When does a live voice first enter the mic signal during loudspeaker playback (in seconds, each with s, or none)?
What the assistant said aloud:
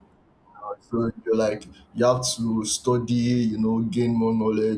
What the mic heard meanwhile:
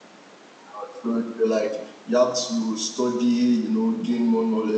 none